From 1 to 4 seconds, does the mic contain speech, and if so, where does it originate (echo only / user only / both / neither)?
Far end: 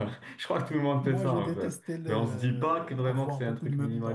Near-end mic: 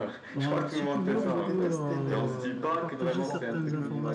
both